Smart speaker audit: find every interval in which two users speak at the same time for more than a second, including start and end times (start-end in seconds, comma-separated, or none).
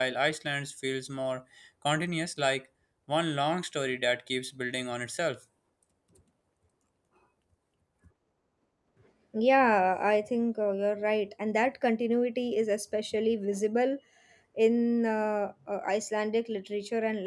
none